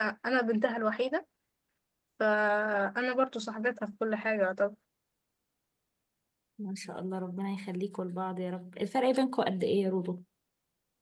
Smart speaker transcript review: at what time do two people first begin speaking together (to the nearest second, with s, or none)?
none